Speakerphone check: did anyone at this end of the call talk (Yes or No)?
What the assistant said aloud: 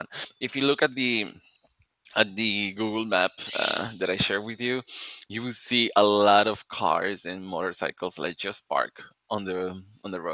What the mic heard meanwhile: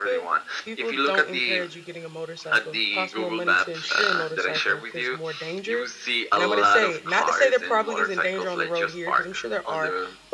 Yes